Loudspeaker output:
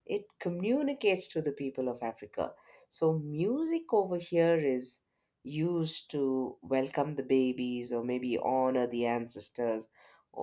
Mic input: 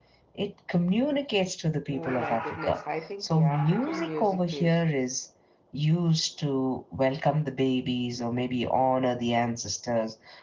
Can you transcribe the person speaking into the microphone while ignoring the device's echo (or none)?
Oh my goodness, I think the African music is